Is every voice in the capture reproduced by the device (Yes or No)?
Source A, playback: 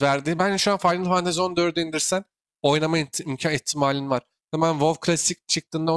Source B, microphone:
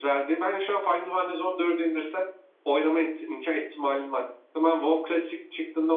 Yes